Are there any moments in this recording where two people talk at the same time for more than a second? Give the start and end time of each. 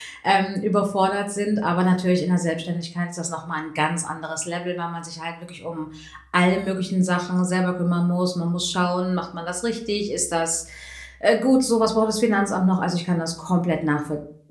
none

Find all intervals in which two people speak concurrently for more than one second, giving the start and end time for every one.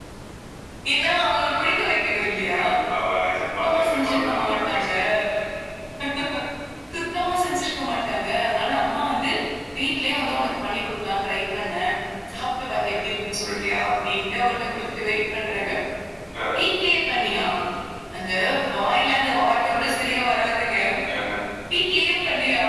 3.6-4.8

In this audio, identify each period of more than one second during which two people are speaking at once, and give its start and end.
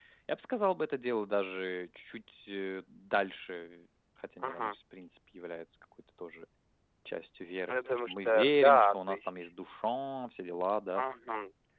7.7-9.5

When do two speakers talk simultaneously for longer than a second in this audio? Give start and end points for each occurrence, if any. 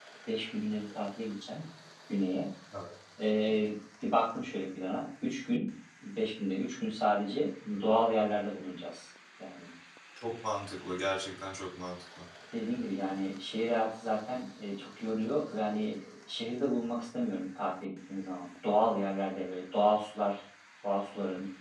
none

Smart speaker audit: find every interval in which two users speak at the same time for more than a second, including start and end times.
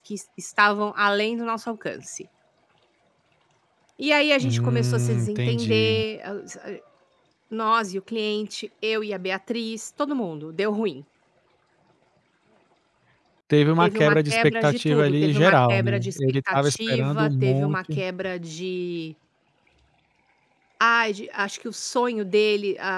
4.4-6.0, 13.8-17.8

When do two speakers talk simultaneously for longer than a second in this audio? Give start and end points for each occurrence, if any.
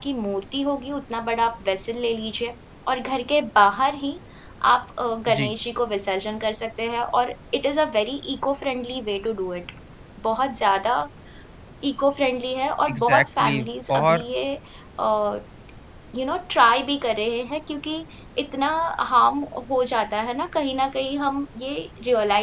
12.9-14.2

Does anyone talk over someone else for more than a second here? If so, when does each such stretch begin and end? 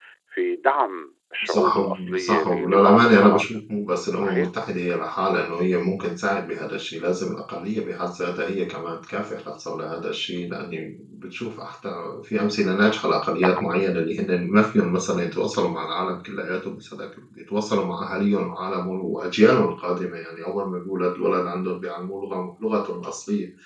1.4-3.6

